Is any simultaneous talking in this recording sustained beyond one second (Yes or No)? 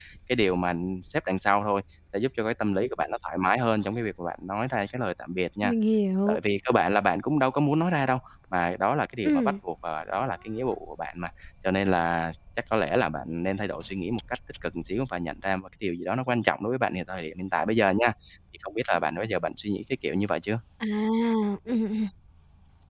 No